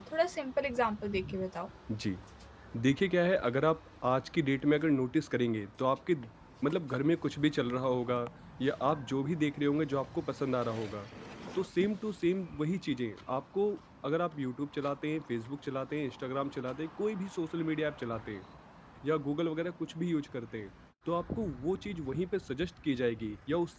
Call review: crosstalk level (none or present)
none